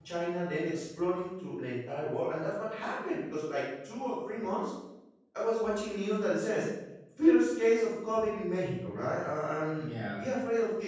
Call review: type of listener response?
listening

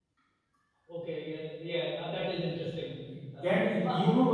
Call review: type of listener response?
taking over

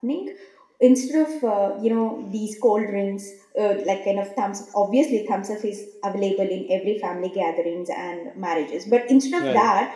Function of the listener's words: listening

